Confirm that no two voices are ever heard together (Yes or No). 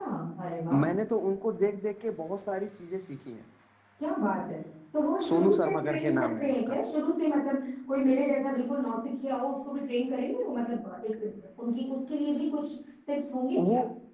No